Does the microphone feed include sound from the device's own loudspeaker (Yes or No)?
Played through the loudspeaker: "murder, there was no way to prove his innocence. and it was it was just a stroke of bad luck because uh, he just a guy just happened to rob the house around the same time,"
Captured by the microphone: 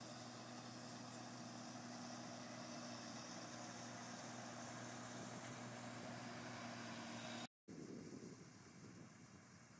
No